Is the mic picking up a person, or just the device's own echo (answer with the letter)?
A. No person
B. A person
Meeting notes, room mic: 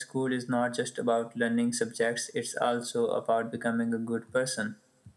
A